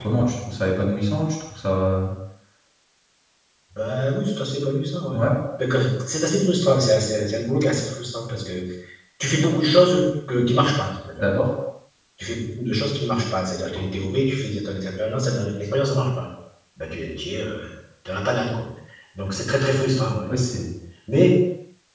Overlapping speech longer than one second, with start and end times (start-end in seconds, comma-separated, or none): none